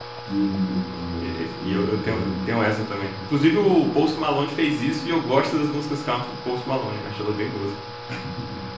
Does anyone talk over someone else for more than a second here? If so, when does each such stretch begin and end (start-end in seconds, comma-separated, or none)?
1.2-2.5